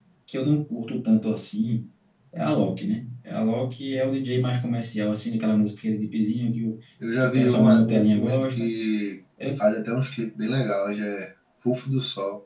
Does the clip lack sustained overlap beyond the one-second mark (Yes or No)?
No